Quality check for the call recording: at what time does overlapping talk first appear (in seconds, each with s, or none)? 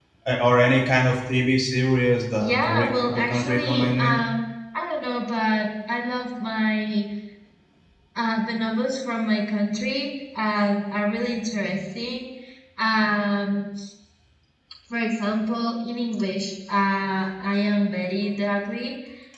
2.4 s